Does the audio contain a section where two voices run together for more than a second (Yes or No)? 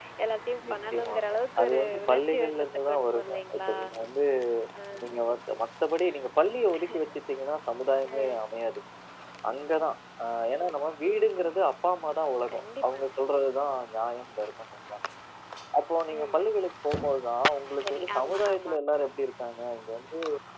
Yes